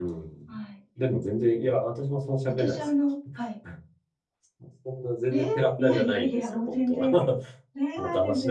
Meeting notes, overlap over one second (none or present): present